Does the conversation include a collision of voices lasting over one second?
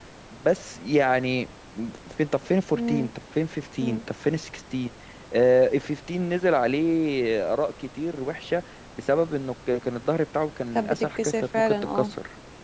Yes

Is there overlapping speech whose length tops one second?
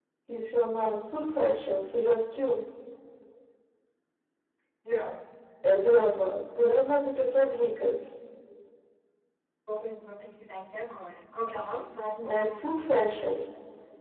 No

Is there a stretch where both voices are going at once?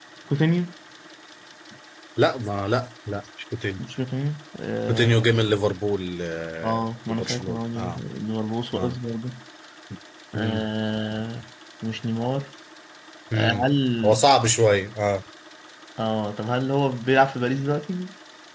Yes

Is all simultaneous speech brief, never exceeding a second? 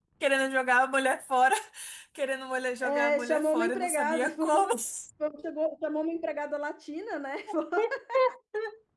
No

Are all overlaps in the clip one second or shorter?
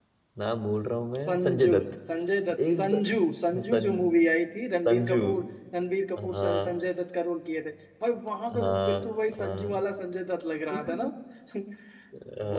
No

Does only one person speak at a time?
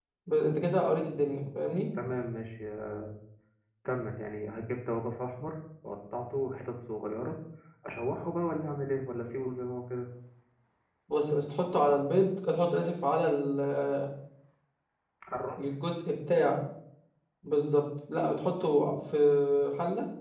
Yes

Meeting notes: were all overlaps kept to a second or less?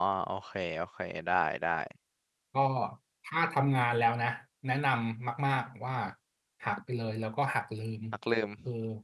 Yes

